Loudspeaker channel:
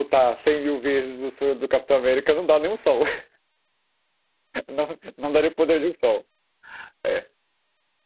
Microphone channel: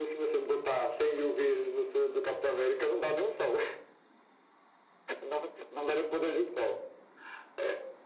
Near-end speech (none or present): none